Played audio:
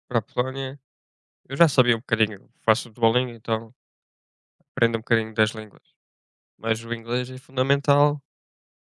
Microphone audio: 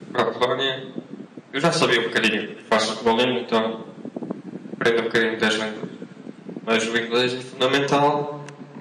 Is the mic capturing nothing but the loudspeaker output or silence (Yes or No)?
Yes